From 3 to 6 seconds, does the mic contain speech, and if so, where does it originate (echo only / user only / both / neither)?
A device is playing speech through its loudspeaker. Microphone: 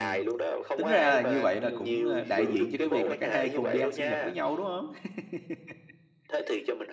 both